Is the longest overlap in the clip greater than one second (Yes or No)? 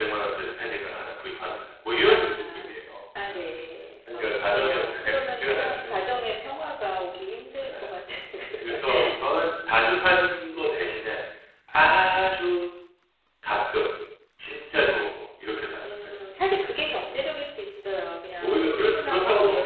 Yes